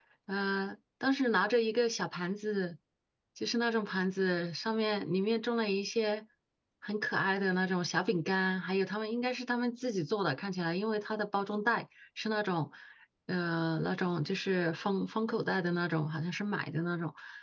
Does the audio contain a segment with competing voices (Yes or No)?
No